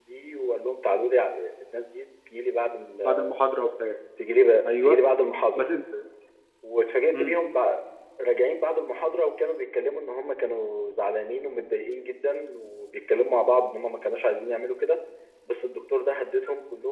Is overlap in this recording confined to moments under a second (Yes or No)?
Yes